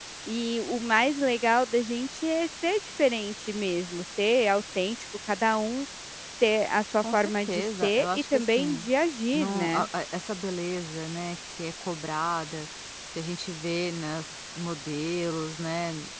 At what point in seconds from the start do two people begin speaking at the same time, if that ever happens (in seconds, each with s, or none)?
7.0 s